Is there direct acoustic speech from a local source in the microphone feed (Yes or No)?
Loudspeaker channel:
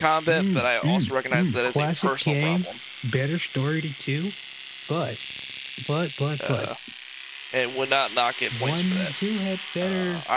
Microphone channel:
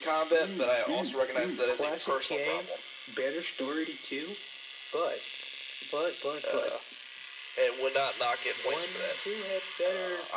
No